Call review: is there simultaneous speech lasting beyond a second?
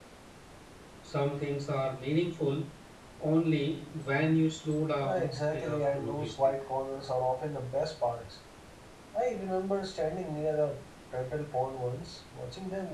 Yes, from 5.0 s

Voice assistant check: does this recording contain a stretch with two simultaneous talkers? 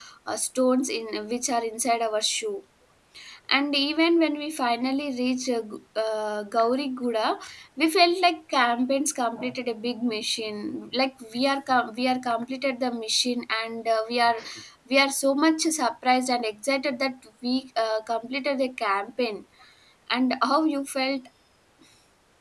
No

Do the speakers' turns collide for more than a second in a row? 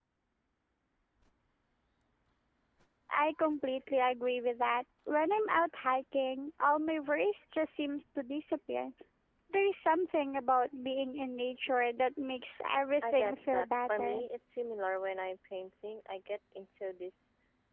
Yes, from 13.0 s

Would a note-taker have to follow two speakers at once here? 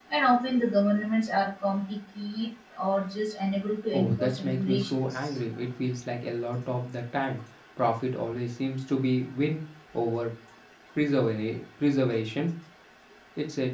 Yes, from 3.9 s

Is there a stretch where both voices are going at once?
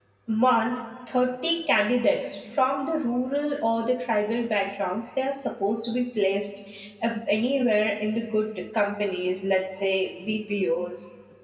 No

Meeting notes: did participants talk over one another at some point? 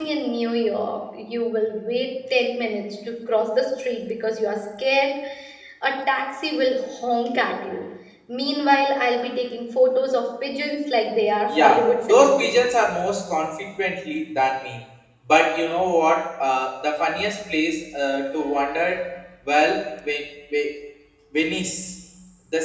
Yes, from 11.5 s

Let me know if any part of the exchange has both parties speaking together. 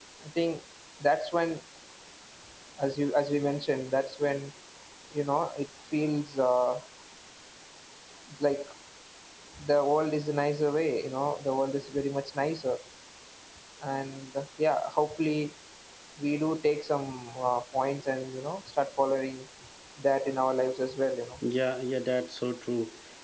No

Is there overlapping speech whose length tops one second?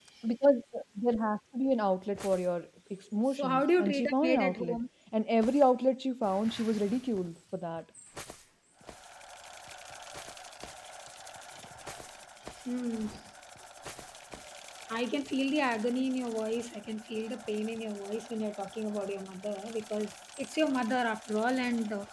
Yes, from 3.3 s

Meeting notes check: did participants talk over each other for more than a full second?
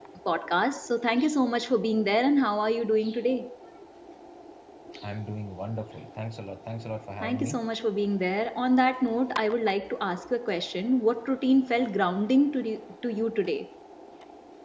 No

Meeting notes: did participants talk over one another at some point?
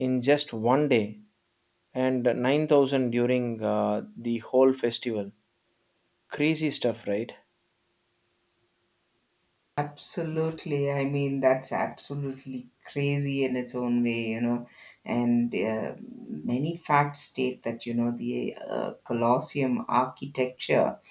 No

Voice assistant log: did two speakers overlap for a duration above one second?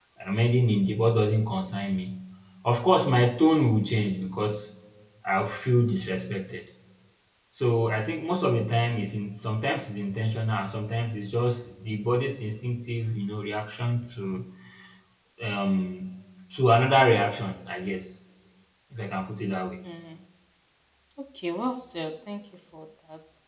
No

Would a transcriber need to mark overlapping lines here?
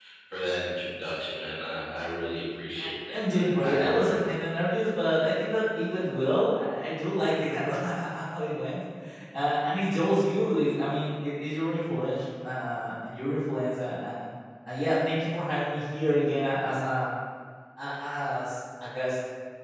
Yes, from 2.8 s

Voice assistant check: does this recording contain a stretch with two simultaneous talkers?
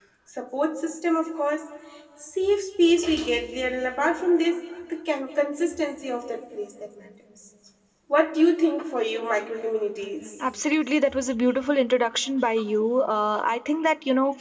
No

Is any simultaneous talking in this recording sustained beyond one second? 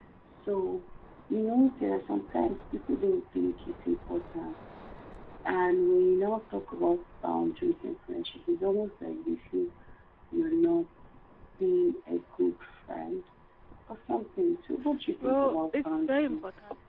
Yes, from 15.2 s

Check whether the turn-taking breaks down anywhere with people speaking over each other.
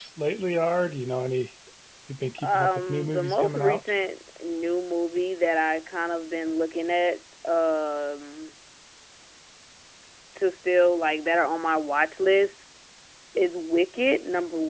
Yes, from 2.4 s

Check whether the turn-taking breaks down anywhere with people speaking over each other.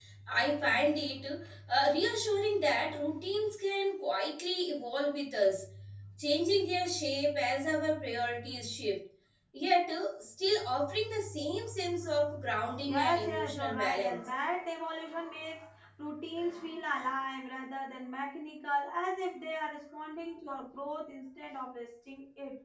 Yes, from 12.9 s

